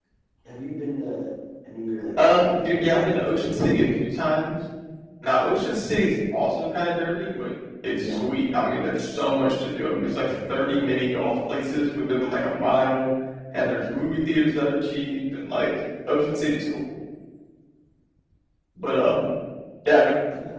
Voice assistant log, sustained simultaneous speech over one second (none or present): present